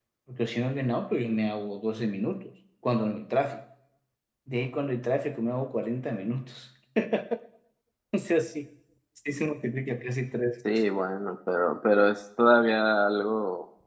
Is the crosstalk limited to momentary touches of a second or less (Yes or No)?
Yes